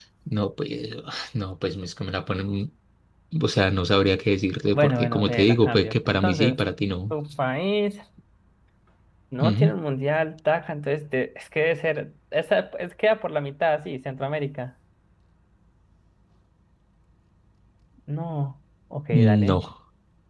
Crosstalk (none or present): present